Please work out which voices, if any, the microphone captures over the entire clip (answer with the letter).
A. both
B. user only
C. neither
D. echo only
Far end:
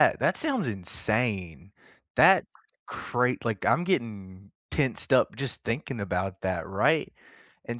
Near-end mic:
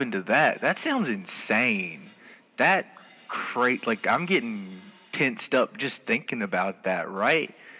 D